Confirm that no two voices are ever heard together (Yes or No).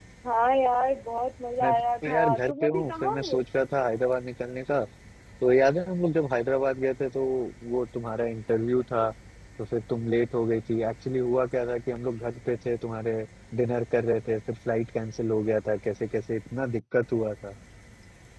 No